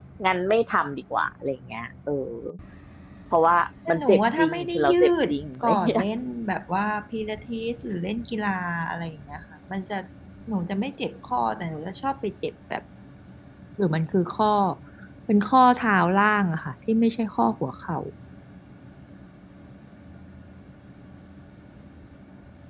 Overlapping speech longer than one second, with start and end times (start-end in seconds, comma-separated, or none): 3.9-5.3